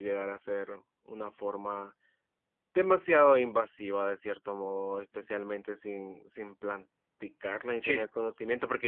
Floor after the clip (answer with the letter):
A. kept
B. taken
A